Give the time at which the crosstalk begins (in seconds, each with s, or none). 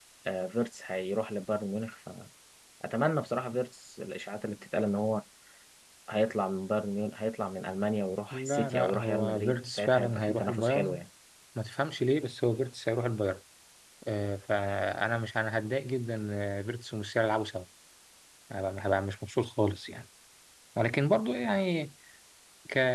8.3 s